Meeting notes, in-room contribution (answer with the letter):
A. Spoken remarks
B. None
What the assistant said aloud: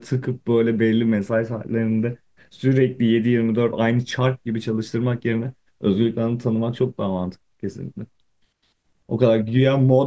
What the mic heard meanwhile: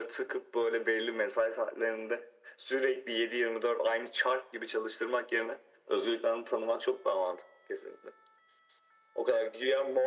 B